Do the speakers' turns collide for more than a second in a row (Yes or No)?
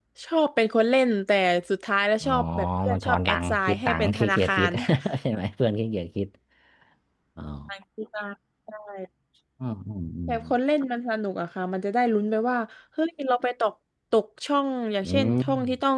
Yes